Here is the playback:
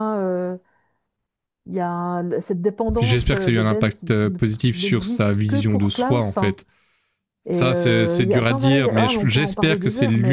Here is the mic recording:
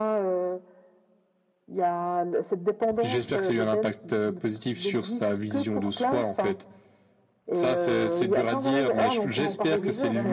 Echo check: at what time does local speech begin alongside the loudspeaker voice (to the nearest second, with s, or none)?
9 s